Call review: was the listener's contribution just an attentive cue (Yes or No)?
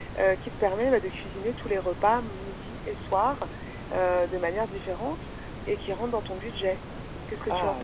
No